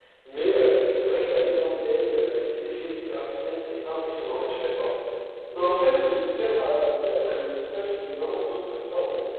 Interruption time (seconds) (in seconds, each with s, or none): none